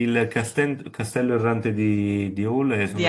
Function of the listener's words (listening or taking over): listening